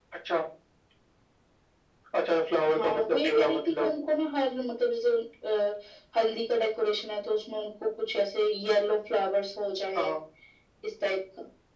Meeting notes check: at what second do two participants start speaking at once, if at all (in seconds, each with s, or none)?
2.7 s